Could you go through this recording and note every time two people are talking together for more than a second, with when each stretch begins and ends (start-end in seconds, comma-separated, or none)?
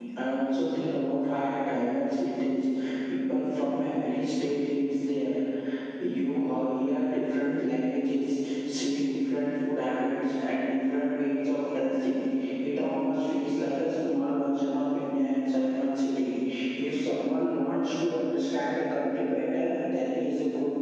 none